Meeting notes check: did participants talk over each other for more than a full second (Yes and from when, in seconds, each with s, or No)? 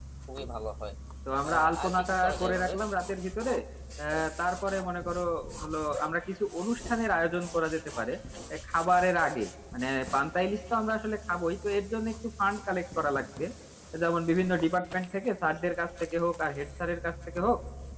Yes, from 1.5 s